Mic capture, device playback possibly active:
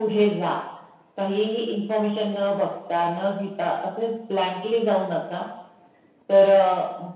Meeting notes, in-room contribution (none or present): none